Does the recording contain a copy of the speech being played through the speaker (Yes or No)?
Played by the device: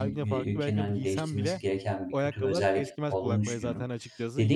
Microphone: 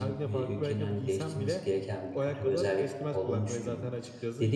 Yes